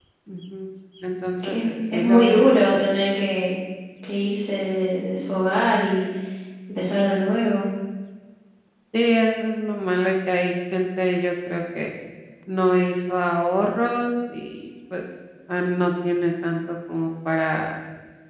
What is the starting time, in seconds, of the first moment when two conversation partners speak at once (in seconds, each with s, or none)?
1.4 s